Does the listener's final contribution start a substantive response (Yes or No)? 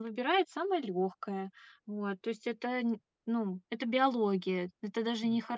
No